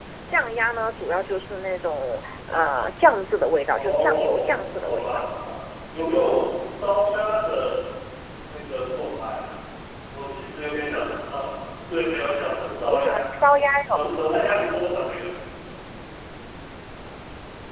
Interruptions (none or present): present